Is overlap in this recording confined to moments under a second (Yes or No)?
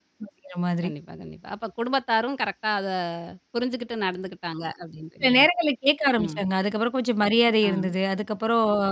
Yes